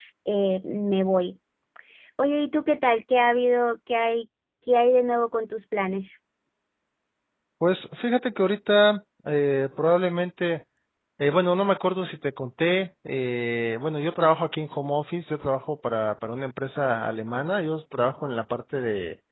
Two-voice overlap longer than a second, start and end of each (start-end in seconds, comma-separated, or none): none